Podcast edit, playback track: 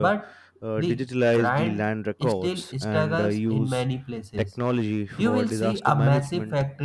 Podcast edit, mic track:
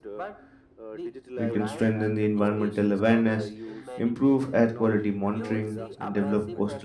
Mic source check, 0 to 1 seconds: echo only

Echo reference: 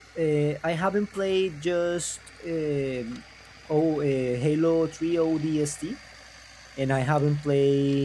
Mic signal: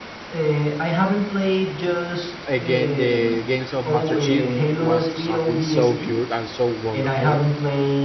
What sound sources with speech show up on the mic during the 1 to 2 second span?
echo only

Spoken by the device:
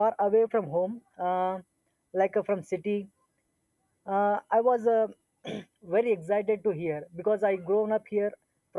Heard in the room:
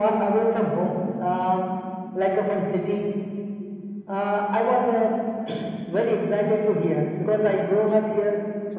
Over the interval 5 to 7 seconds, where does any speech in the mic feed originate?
echo only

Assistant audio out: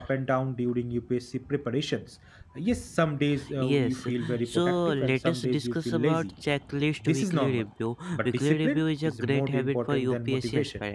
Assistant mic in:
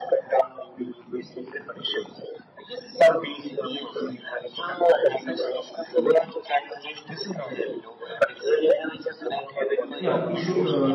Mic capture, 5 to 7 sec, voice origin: echo only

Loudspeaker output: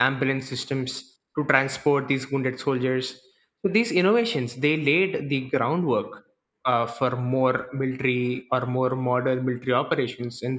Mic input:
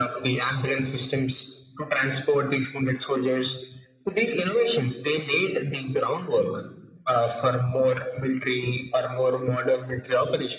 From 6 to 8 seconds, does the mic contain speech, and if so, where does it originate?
echo only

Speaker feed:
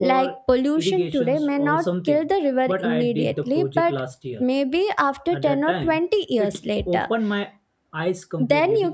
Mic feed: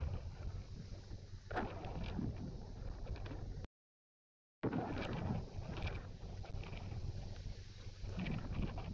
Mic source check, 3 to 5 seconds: neither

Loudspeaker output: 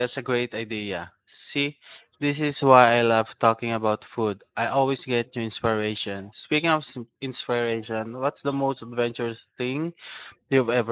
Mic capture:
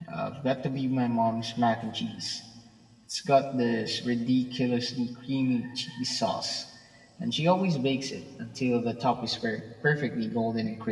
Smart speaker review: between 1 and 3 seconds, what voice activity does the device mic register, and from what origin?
user only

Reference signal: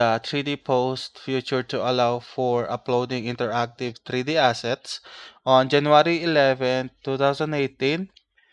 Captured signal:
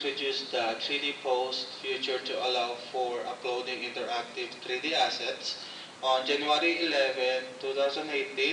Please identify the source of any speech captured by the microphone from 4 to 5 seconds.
echo only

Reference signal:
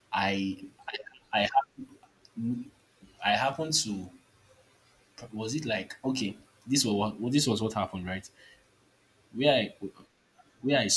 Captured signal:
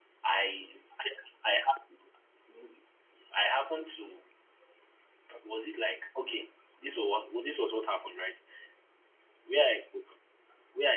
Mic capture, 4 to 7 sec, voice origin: echo only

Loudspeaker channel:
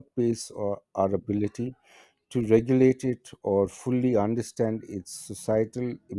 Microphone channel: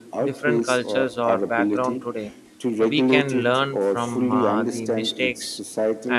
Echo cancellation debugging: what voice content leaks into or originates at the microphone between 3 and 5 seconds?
both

